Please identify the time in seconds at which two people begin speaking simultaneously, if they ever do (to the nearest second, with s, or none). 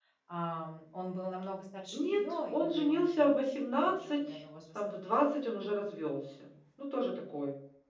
2 s